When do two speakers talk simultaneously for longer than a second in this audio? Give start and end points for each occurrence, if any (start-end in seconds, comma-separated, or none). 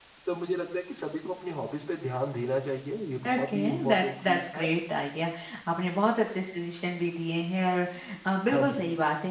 3.2-4.7